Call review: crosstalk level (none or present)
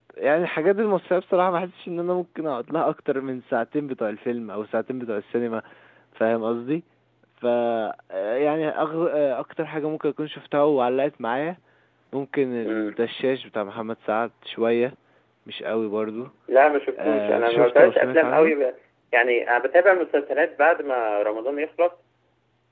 present